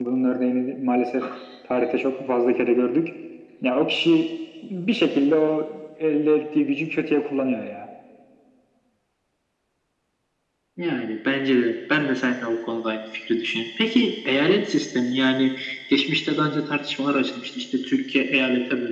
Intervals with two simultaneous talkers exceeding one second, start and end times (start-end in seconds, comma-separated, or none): none